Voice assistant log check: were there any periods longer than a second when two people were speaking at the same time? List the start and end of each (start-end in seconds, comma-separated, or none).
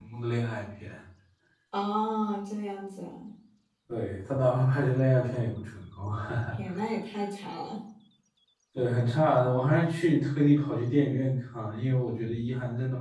none